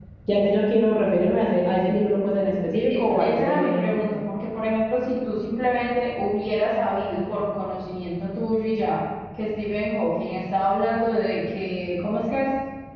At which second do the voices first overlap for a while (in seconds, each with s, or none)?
2.7 s